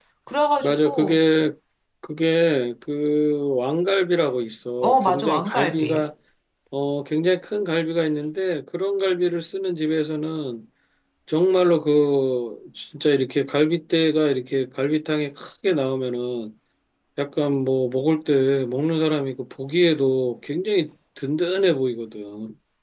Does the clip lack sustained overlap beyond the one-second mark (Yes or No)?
No